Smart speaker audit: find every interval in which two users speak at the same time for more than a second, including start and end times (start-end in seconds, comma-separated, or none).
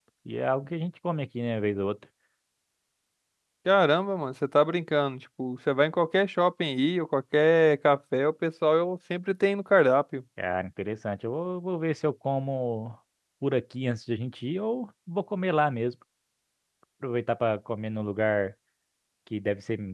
none